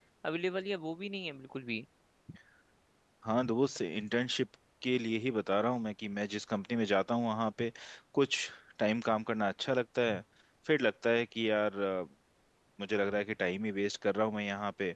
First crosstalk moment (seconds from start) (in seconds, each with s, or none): none